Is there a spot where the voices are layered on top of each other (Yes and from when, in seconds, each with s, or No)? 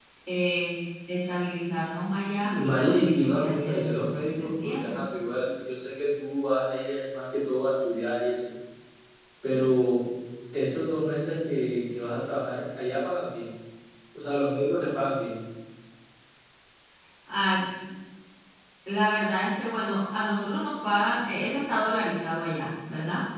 Yes, from 2.4 s